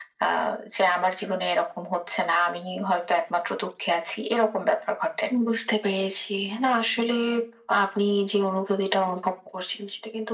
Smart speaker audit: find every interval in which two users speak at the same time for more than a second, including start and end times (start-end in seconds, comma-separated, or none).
none